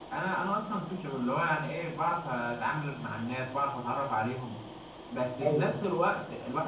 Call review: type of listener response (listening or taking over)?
listening